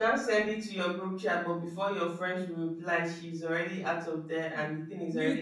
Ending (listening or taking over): taking over